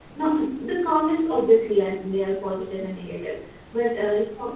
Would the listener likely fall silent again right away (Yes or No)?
Yes